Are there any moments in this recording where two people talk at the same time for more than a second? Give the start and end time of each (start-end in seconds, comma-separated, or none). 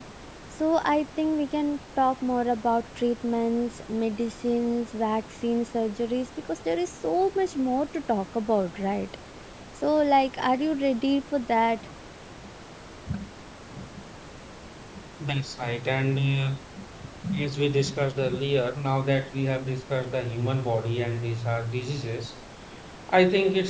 none